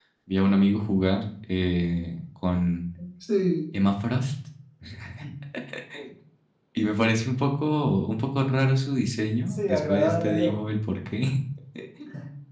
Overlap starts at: 9 s

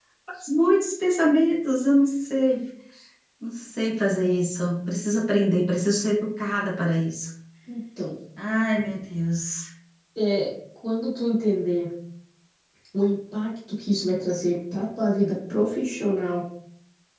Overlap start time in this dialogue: none

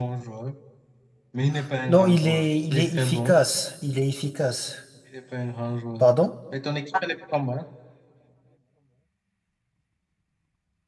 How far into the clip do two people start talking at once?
2 s

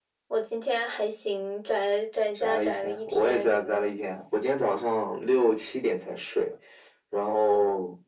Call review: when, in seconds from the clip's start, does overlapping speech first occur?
2 s

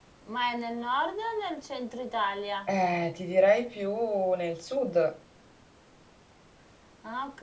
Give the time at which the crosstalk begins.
none

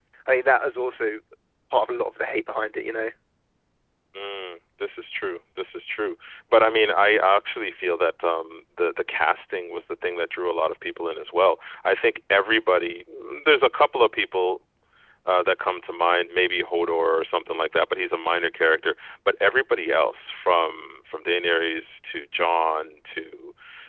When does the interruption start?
none

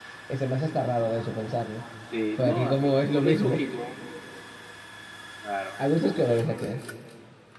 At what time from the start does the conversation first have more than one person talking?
2 s

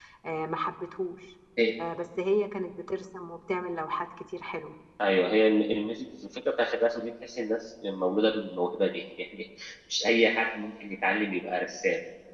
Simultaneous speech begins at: none

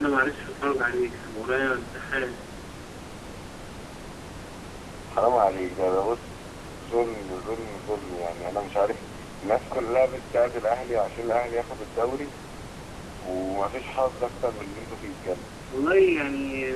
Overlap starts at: none

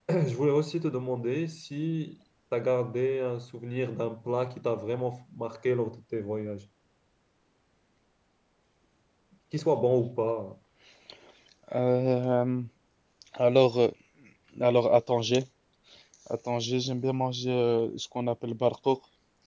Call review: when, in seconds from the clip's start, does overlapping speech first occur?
none

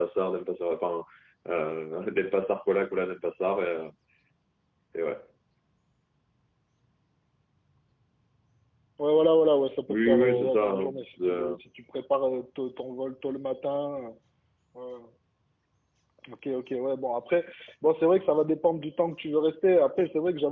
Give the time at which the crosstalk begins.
10 s

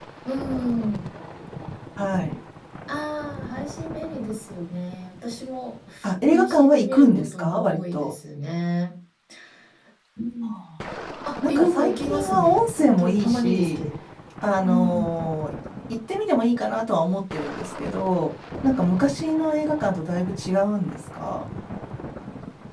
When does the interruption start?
6 s

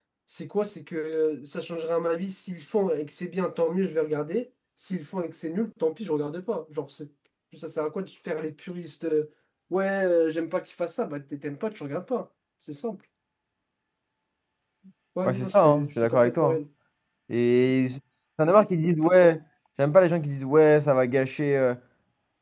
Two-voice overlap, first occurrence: 15 s

